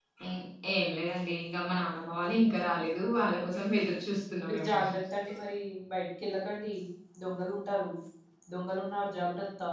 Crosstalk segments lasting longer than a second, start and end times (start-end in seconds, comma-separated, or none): none